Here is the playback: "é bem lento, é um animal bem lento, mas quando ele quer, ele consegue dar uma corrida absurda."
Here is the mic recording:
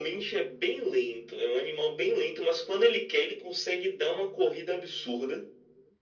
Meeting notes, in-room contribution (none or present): none